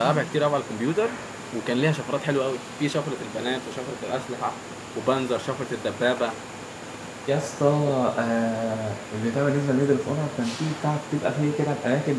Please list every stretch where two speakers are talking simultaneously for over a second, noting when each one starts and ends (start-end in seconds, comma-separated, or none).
none